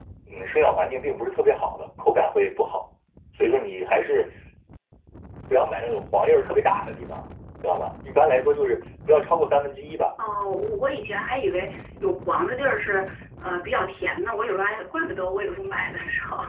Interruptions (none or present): none